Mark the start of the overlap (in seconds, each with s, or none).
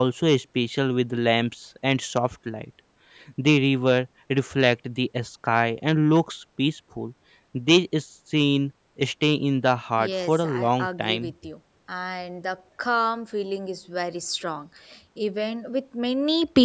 10.0 s